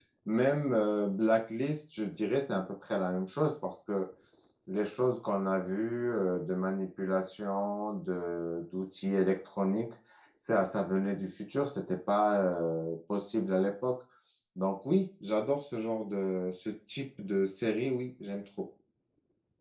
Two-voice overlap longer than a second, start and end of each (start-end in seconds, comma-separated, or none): none